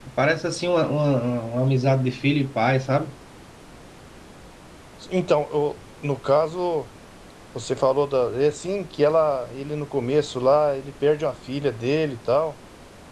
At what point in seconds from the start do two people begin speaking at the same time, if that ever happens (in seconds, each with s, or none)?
none